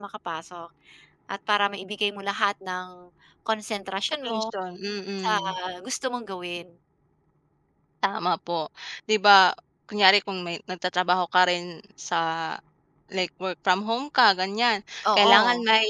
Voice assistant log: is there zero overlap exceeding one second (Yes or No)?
Yes